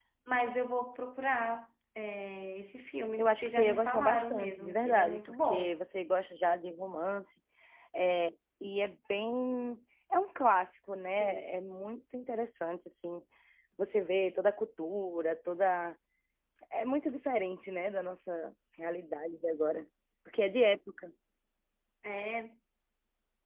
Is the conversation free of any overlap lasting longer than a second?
No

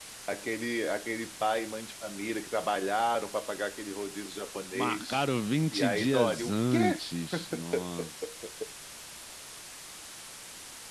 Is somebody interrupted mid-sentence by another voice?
Yes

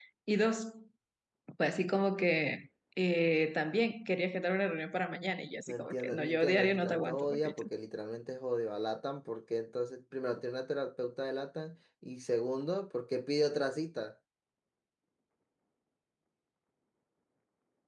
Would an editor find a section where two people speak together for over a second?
Yes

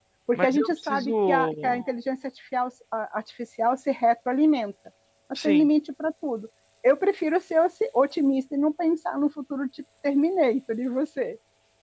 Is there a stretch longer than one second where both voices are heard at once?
Yes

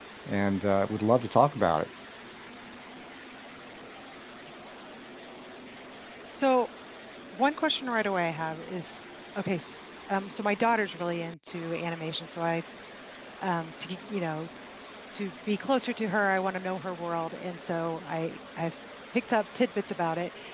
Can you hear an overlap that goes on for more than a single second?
No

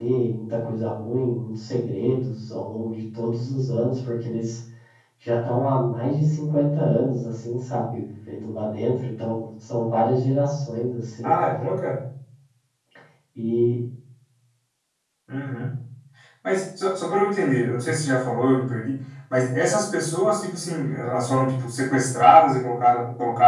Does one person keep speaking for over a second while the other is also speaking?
No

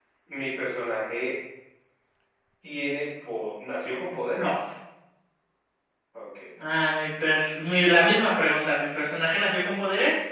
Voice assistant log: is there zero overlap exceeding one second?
Yes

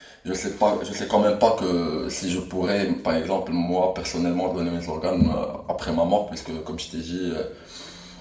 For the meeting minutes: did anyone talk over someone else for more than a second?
No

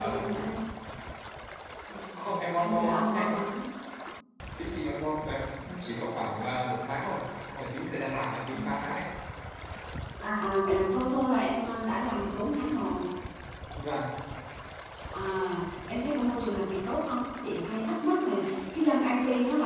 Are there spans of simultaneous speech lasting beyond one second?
Yes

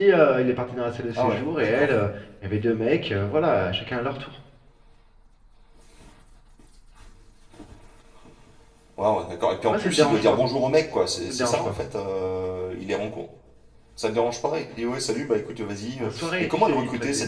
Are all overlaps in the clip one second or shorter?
No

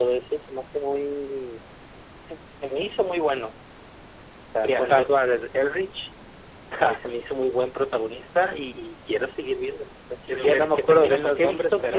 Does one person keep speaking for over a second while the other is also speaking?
Yes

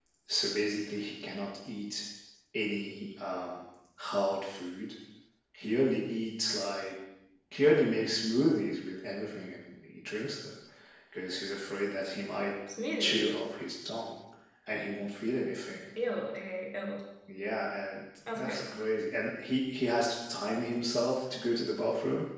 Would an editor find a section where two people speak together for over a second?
No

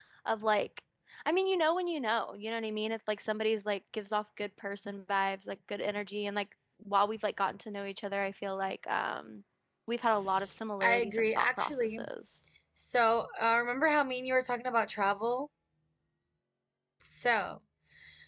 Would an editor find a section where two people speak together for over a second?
Yes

